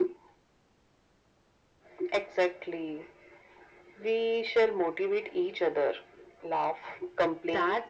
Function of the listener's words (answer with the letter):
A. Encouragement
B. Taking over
B